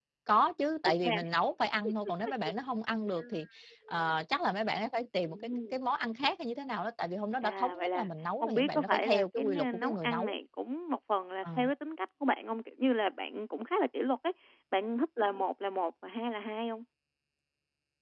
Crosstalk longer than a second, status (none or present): present